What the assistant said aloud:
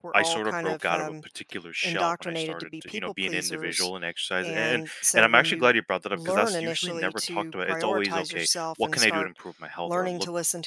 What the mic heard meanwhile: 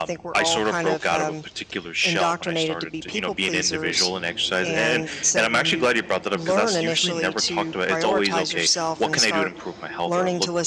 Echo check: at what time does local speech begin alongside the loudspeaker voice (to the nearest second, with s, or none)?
none